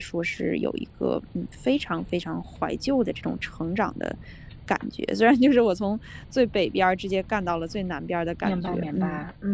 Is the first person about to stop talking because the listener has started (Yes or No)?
Yes